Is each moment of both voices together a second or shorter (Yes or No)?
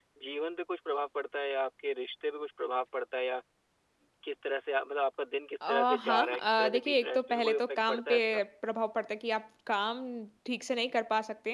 No